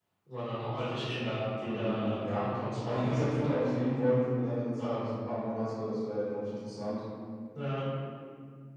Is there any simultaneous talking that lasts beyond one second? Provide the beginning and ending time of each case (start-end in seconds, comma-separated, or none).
1.6-3.3